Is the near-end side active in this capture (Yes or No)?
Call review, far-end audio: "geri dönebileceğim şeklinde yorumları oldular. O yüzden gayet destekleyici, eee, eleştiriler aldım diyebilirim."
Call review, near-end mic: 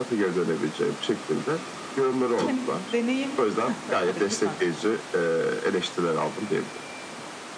Yes